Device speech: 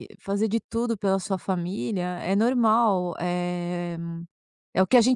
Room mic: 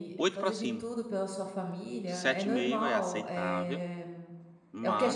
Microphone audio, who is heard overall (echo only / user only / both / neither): both